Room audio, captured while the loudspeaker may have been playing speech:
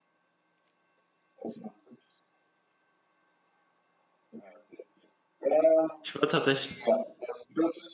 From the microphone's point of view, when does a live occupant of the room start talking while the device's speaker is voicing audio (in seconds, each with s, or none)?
6.0 s